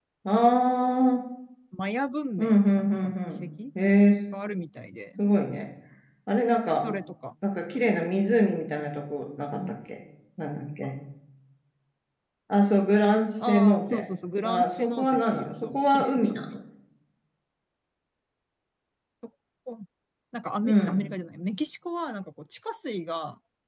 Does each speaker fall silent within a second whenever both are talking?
No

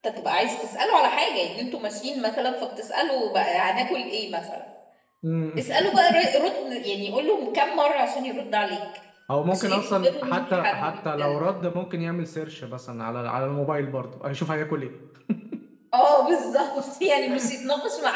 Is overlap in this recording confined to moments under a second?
No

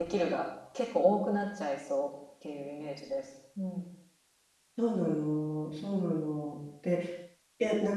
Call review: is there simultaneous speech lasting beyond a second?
No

